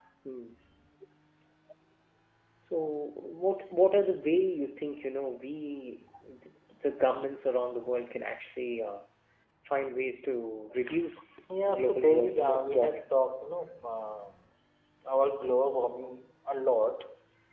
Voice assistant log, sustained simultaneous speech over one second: present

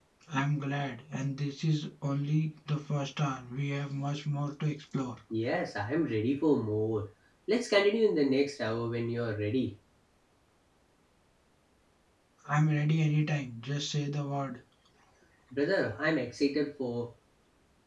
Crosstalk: none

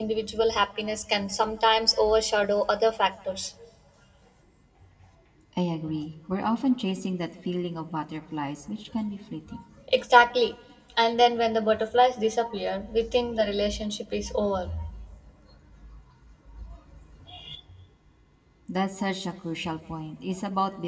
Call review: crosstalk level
none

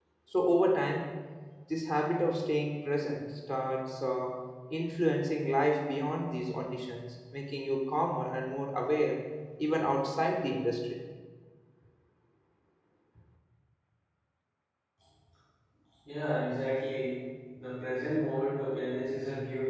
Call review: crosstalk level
none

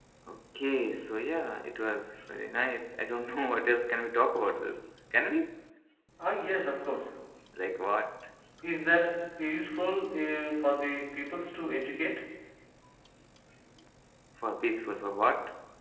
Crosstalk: none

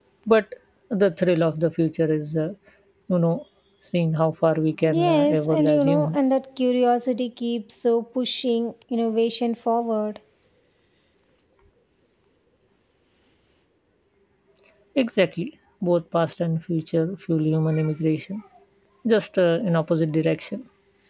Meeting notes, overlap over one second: present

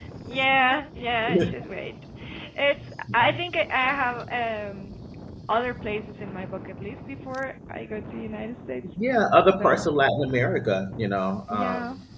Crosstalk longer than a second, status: none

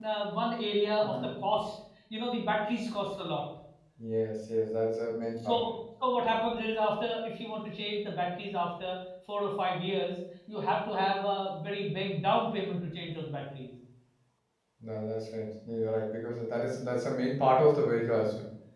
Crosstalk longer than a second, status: none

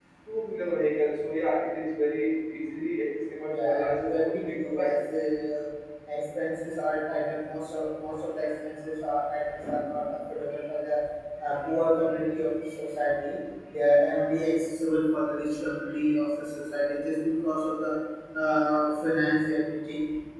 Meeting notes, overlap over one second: present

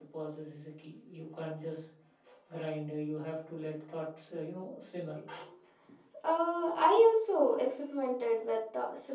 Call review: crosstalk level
none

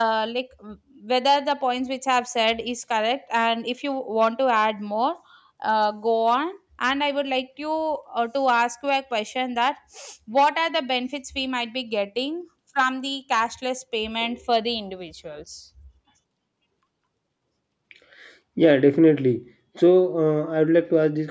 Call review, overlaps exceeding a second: none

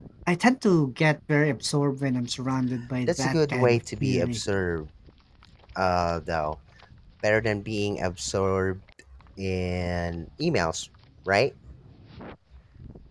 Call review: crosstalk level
present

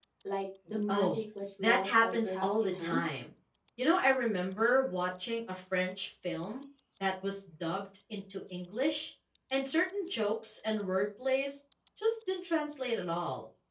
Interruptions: present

